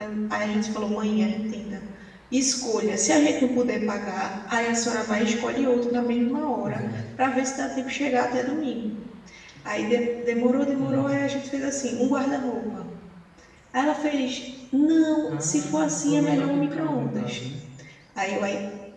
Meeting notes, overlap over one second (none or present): present